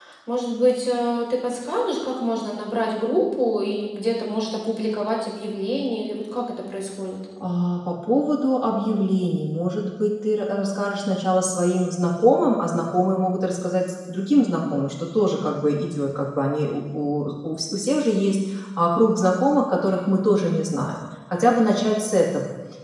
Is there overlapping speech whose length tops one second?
No

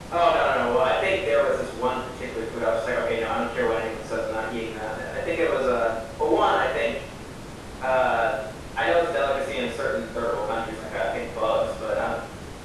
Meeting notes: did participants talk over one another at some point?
No

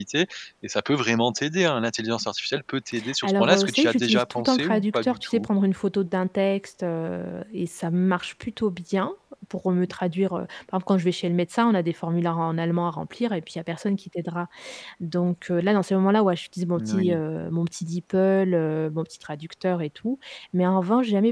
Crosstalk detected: Yes, from 3.2 s

